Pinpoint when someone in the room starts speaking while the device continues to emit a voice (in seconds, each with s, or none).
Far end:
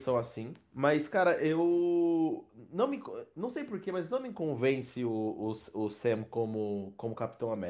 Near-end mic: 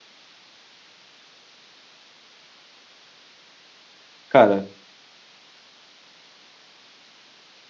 4.3 s